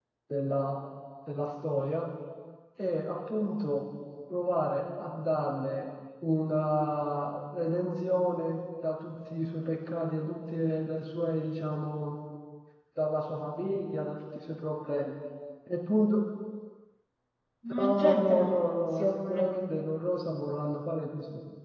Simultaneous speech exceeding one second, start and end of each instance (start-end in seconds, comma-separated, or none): 17.8-19.6